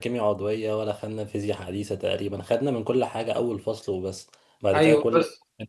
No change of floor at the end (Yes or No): No